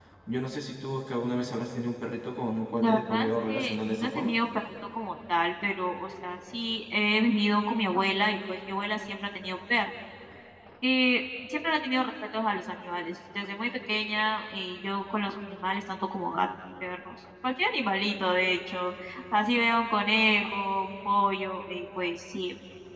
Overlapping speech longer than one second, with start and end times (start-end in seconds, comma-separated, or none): 2.8-4.3